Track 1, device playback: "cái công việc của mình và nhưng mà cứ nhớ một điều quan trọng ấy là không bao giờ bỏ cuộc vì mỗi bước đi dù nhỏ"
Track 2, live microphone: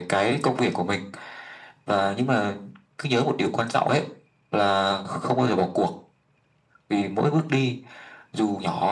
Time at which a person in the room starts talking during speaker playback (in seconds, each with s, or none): none